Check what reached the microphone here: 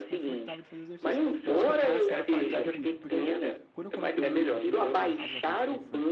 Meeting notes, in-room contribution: present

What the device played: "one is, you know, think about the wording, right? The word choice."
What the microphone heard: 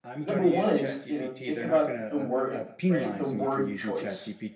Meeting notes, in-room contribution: present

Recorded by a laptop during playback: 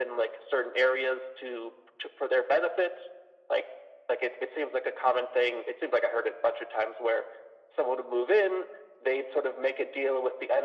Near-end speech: none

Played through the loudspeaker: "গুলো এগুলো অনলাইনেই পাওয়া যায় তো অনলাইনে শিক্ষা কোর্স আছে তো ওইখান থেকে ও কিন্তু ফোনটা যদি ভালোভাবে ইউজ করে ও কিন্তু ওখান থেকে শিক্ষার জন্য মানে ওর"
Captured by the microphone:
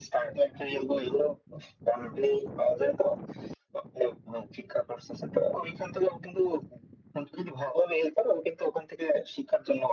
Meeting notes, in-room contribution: none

